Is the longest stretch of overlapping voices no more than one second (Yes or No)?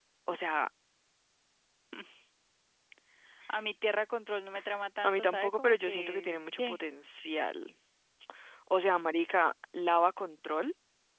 No